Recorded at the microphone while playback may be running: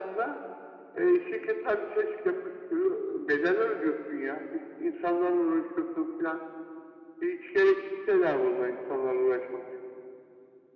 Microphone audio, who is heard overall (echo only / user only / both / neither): echo only